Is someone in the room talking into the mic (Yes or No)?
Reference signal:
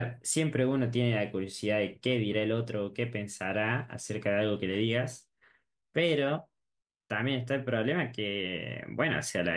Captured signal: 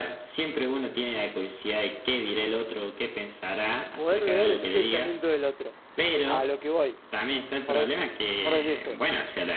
Yes